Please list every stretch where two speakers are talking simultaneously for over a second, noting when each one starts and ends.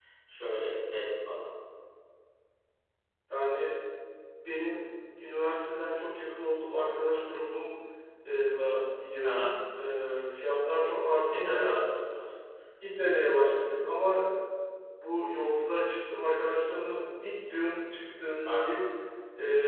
none

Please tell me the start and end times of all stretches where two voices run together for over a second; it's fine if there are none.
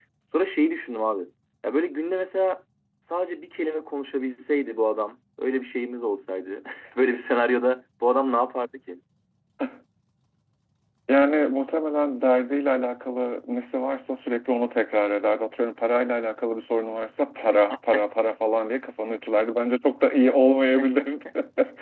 none

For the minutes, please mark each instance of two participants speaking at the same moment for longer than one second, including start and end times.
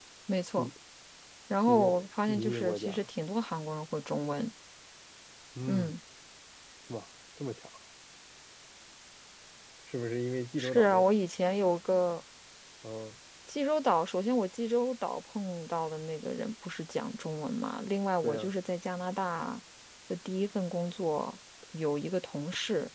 1.7-3.1

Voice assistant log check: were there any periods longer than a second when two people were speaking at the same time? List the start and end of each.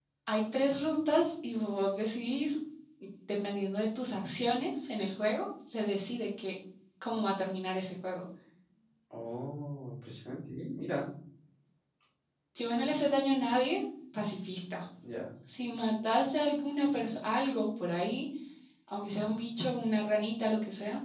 none

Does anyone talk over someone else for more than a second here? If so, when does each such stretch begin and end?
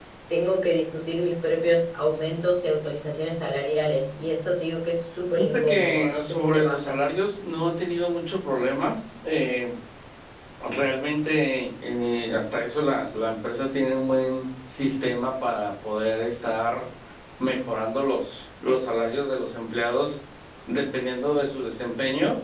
5.5-7.0

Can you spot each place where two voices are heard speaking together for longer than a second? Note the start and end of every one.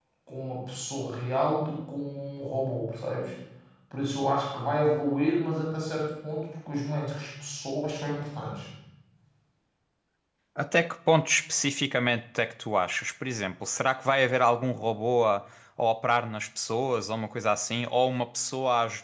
none

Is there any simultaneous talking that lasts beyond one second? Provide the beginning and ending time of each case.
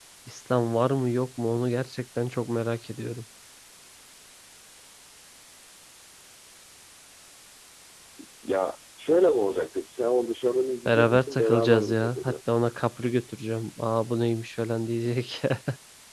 10.9-12.3

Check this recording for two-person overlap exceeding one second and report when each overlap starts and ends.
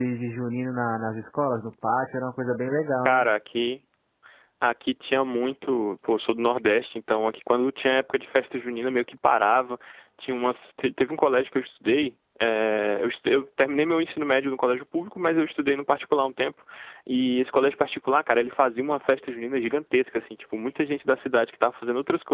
none

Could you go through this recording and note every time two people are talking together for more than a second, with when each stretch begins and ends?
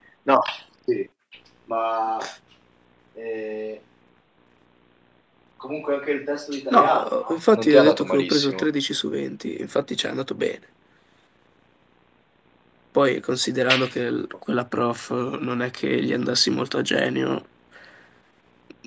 6.7-8.6

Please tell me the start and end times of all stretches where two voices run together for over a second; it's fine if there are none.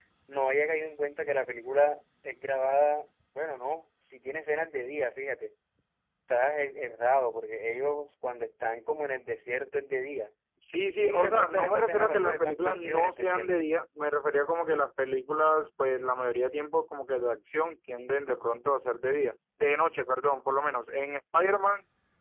10.9-13.5

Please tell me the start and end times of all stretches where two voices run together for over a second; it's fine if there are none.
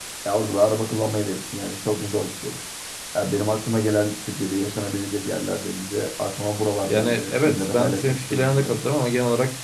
6.9-8.8

